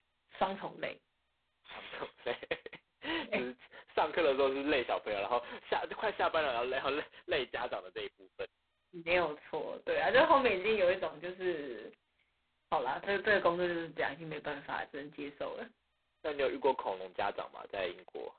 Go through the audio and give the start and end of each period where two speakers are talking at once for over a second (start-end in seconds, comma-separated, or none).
none